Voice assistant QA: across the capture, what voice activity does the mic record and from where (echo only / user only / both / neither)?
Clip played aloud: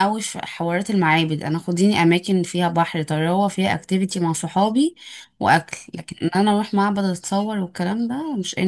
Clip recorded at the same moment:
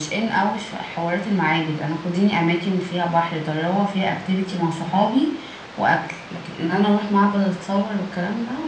echo only